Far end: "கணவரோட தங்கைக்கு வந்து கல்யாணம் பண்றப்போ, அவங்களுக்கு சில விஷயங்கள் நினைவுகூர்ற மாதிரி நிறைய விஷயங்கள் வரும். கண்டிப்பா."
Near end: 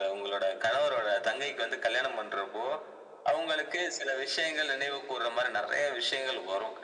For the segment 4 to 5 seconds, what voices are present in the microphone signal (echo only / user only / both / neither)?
echo only